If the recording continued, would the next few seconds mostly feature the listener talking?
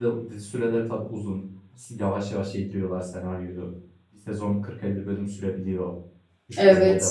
Yes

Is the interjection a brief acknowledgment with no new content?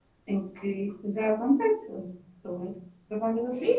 No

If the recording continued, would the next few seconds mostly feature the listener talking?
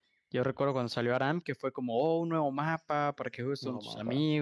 No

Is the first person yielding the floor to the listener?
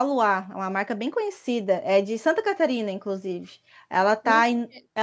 No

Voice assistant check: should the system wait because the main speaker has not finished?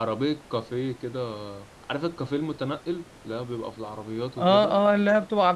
No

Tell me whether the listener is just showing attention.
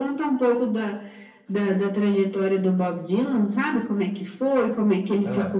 Yes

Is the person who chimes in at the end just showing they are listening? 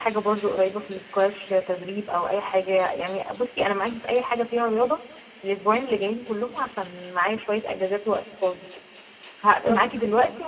Yes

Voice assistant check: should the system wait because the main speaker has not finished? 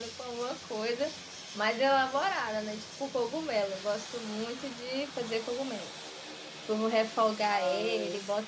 Yes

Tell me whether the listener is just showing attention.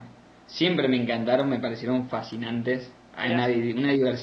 Yes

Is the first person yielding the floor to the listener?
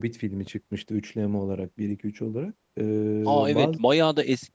Yes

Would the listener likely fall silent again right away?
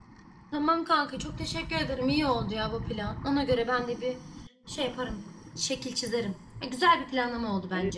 No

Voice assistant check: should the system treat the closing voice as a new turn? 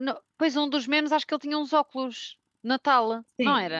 Yes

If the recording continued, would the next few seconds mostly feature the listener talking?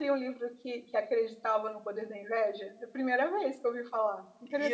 Yes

